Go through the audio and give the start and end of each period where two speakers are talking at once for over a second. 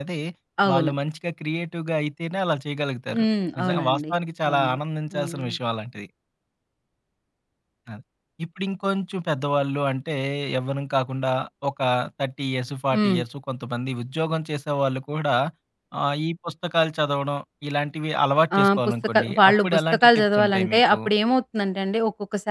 18.6-21.0

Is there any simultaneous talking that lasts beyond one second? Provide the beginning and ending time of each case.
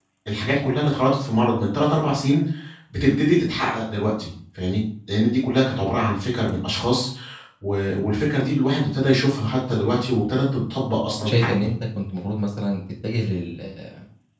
none

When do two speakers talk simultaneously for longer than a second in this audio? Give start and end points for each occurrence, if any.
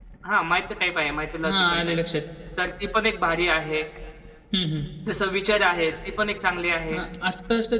none

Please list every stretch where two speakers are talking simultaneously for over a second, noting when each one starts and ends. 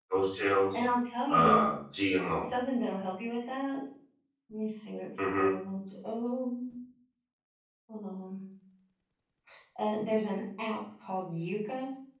none

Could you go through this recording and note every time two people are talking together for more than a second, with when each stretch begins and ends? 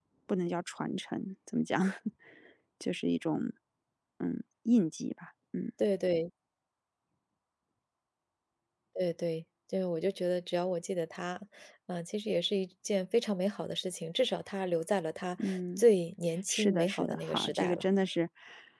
16.5-17.8

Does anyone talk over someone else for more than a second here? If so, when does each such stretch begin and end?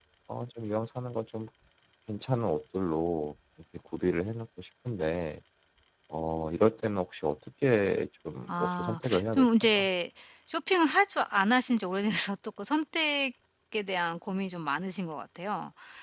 8.5-9.9

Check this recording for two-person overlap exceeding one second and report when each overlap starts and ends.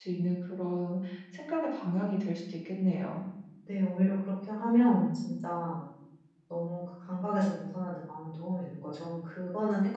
none

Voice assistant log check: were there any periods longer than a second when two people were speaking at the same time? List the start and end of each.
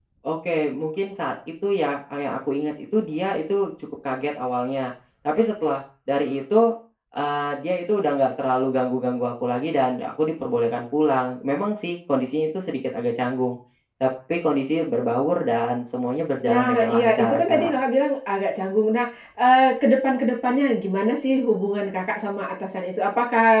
16.5-17.8

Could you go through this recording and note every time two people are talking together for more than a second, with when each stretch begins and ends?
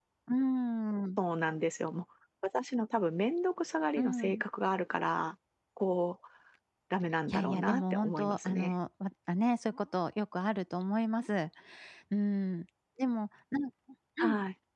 7.3-8.7

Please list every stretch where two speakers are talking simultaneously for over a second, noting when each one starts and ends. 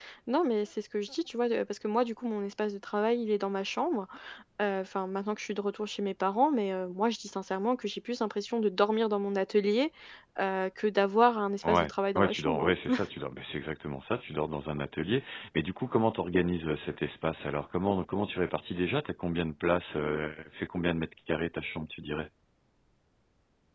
11.6-13.0

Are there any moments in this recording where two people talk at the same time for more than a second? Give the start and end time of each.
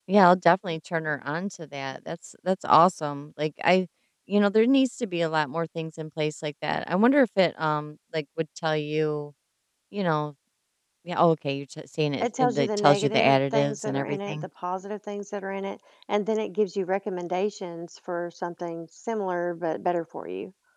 12.2-14.4

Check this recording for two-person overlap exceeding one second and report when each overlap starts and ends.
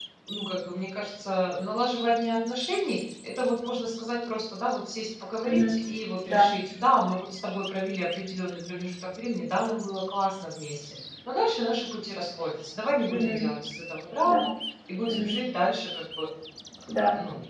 none

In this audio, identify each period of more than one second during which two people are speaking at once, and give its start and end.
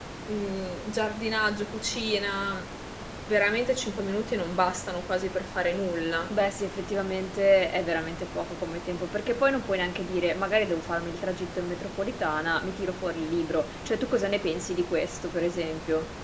none

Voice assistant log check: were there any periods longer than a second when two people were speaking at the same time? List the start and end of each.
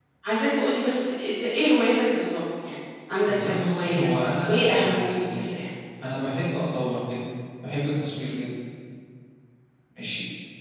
3.3-5.6

